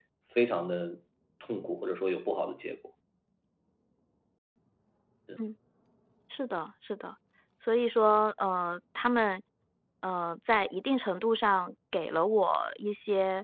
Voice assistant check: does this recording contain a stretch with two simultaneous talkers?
No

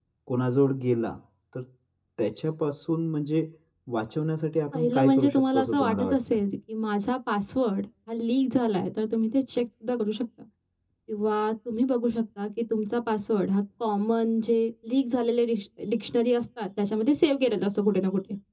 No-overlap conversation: No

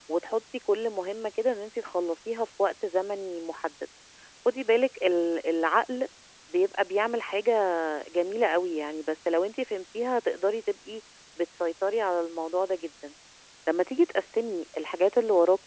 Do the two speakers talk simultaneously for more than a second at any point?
No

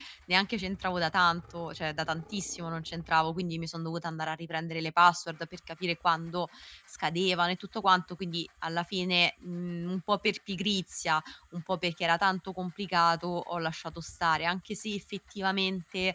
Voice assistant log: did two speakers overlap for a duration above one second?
No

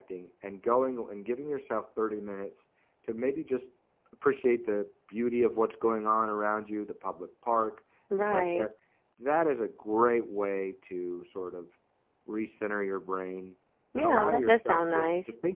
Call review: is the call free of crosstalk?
No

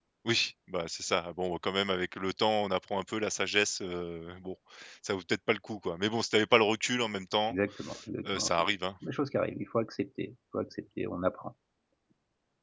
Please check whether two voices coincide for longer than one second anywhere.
No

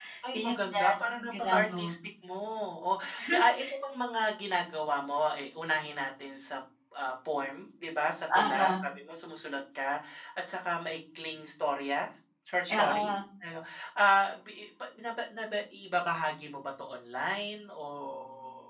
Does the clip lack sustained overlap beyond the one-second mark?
No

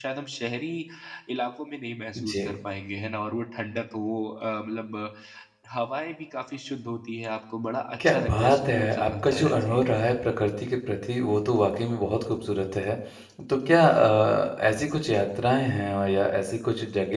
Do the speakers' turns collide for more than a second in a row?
Yes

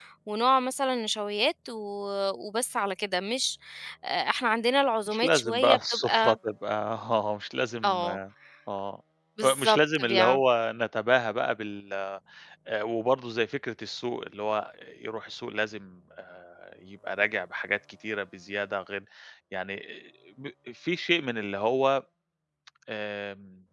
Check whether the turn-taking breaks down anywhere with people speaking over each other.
Yes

